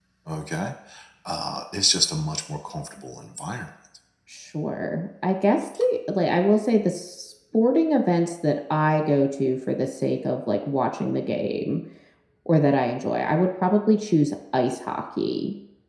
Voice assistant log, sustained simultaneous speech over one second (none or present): none